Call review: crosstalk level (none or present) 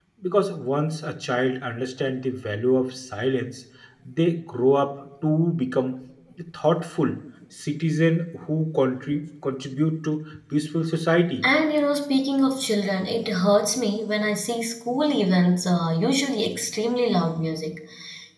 none